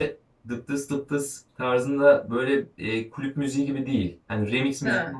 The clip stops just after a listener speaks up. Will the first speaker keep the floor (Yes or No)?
Yes